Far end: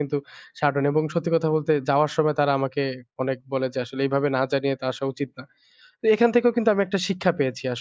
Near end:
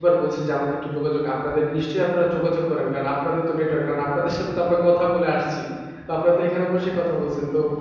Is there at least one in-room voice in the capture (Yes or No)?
Yes